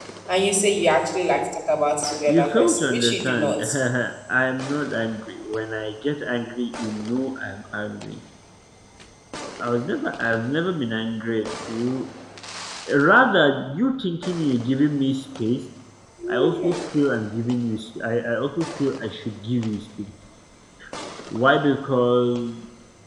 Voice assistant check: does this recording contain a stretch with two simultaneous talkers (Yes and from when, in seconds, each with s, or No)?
Yes, from 2.3 s